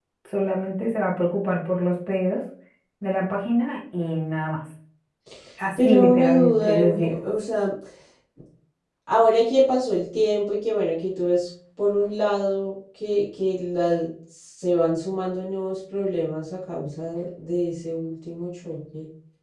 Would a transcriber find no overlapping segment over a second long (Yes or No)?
No